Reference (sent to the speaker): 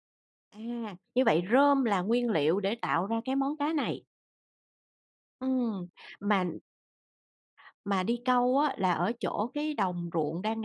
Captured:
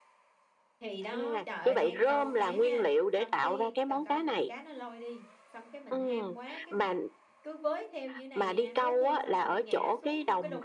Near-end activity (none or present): present